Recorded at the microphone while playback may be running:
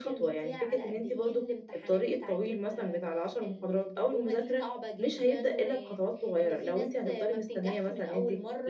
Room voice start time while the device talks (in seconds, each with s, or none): none